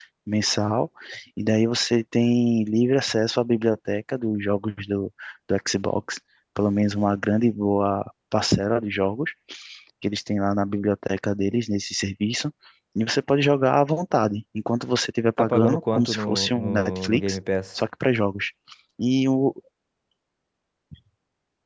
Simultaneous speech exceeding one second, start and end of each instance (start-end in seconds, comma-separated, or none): 15.4-17.4